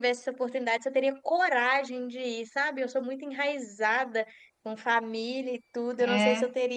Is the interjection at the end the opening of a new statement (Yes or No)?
No